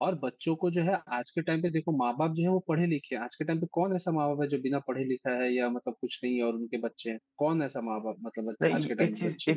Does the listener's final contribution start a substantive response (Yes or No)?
Yes